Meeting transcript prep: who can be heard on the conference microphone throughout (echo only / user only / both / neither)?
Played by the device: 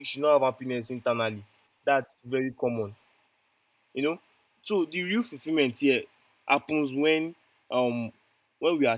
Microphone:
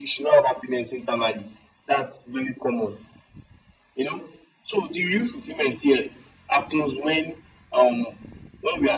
echo only